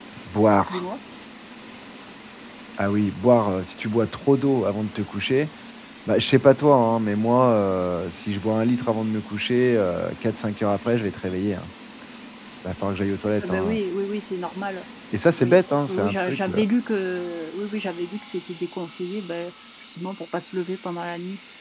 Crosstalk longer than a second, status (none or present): present